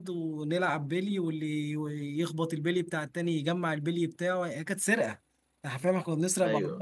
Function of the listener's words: listening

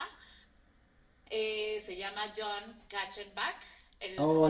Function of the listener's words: taking over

